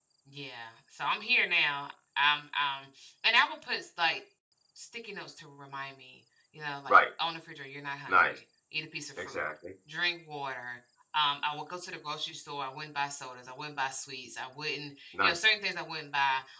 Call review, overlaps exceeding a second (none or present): none